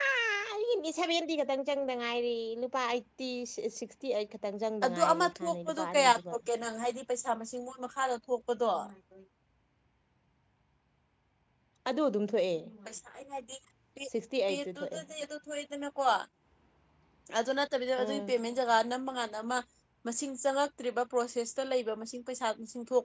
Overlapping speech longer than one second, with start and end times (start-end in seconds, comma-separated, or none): 4.8-6.3